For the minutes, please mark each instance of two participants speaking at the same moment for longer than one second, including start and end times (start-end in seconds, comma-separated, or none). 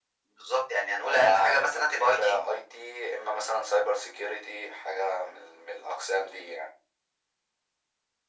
1.0-2.4